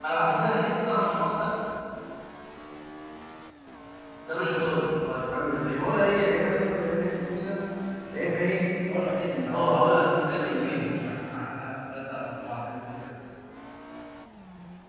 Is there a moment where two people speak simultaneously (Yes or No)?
Yes